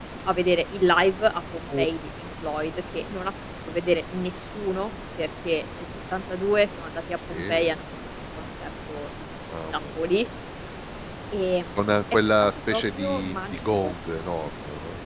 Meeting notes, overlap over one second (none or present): present